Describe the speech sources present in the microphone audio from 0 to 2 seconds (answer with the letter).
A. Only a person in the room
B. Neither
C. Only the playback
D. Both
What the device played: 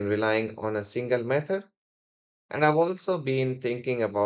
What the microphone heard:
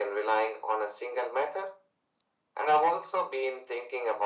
C